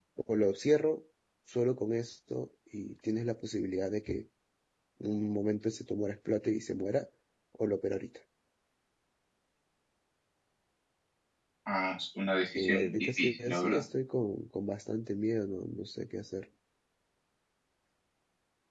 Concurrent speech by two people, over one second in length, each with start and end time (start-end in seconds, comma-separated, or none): 12.6-13.8